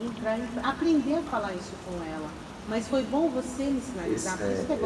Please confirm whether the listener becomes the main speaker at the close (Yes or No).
No